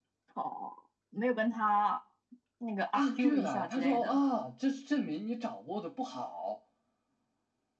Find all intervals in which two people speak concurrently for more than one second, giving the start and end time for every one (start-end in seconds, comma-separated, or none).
2.9-4.2